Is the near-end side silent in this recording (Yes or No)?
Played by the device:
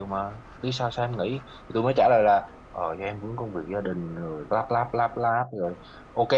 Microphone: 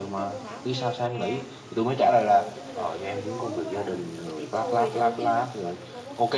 No